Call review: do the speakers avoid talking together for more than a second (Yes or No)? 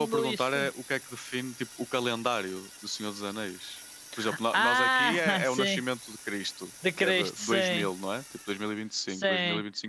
No